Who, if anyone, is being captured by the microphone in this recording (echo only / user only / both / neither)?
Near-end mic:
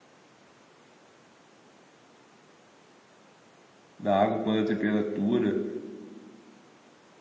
user only